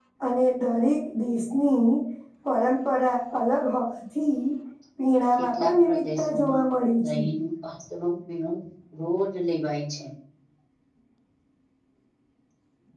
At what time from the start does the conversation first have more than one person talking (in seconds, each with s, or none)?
5.3 s